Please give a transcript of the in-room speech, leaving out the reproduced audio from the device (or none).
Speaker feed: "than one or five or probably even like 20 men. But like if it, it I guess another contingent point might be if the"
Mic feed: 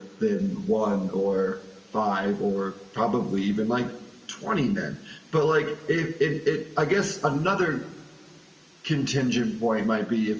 none